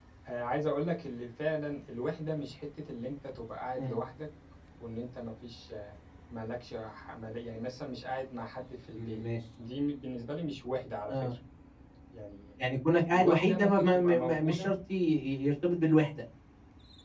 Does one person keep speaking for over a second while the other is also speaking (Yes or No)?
Yes